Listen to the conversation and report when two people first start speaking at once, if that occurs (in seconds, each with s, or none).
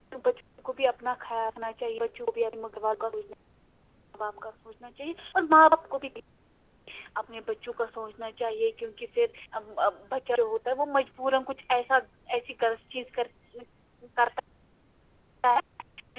none